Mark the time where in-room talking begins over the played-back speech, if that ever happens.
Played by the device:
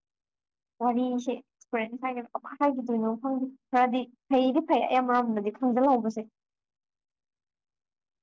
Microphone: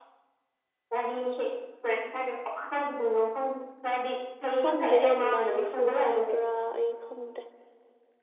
5 s

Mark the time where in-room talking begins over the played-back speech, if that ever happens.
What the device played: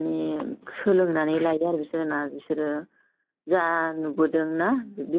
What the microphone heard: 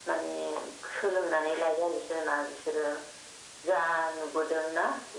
none

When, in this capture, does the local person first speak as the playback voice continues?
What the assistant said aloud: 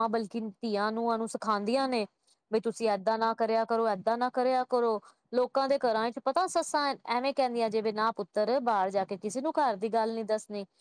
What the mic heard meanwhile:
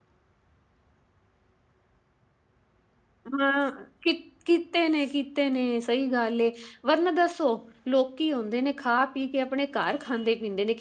3 s

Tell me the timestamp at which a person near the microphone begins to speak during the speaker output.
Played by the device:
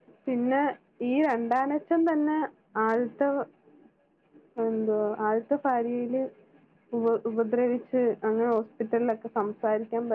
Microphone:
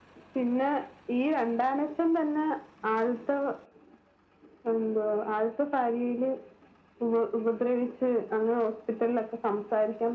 none

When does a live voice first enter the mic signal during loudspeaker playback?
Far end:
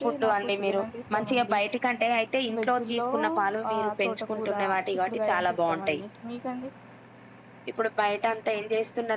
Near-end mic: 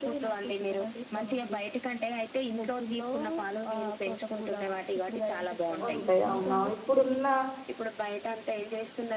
6 s

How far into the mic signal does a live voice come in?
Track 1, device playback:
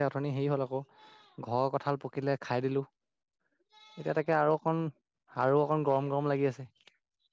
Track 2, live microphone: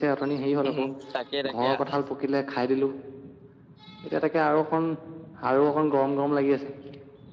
1 s

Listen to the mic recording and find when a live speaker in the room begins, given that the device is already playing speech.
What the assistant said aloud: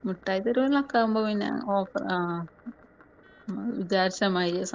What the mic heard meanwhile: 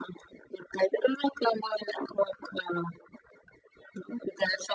none

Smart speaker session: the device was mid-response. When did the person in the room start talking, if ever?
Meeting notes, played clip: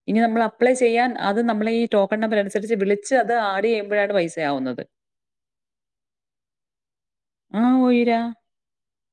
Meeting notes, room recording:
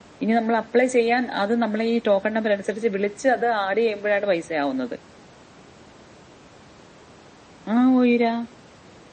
none

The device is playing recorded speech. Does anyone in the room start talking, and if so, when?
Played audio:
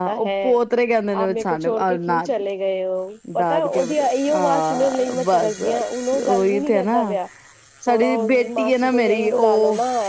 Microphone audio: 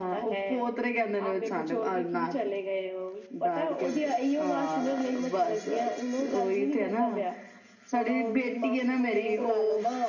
none

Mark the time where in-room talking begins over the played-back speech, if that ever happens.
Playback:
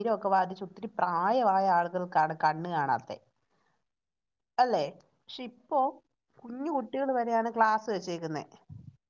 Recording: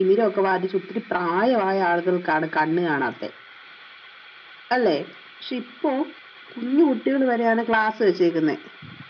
none

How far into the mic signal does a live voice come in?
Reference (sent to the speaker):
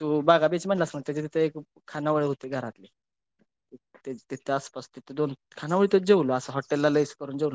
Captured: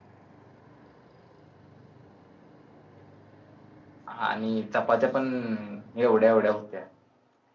4 s

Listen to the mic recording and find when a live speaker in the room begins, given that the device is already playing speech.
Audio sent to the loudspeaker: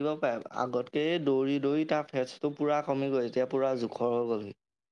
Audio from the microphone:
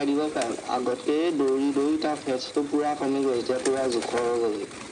none

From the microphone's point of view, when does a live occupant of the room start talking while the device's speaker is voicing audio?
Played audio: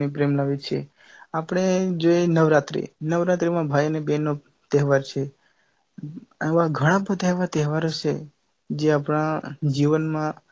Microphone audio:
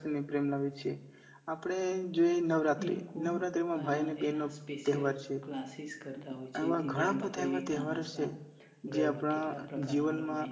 3 s

